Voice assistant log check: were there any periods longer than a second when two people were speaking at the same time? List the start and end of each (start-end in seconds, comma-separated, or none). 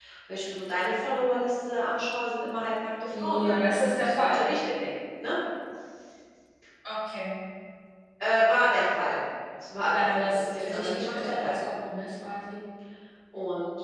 3.1-4.5, 9.9-11.6